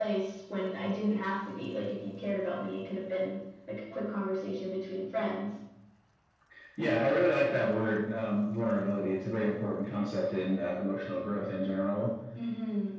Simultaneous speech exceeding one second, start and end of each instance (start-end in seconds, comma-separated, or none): none